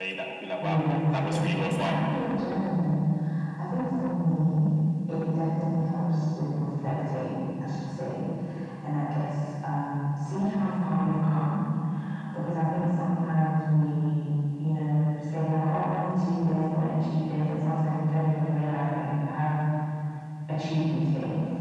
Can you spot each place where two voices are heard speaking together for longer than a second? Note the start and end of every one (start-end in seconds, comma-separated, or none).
0.6-2.0